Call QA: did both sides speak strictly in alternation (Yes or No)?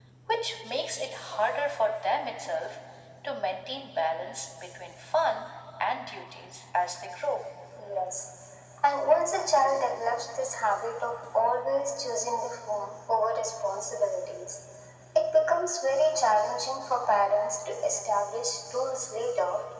Yes